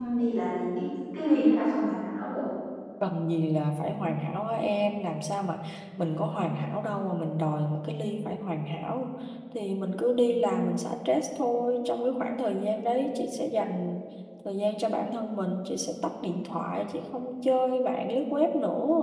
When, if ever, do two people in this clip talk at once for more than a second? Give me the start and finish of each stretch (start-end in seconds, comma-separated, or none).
none